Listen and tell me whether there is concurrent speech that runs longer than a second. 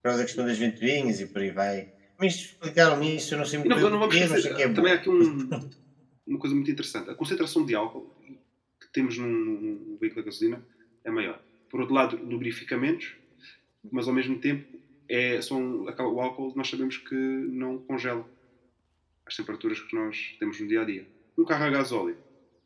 Yes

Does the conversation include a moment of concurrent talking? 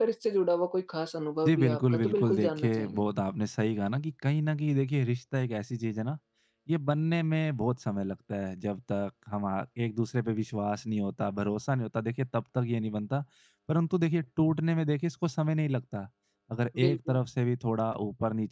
Yes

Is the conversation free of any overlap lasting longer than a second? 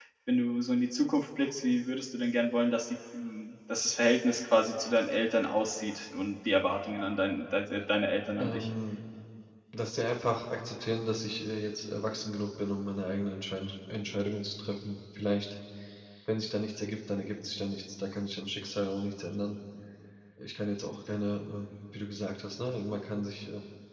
Yes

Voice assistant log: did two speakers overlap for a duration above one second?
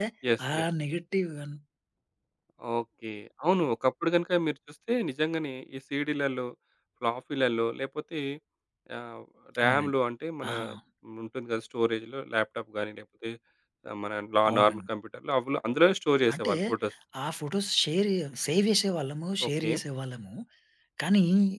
No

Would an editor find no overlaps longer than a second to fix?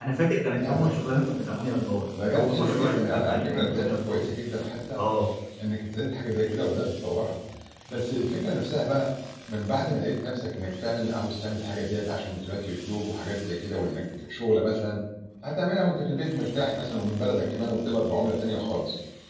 No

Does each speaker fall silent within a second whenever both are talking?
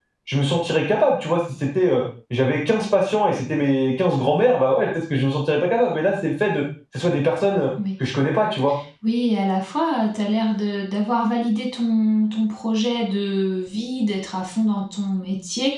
Yes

